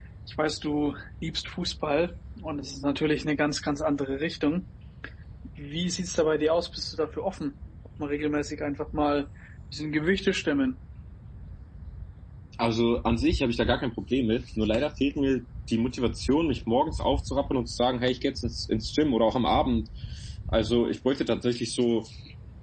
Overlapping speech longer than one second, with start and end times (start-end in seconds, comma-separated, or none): none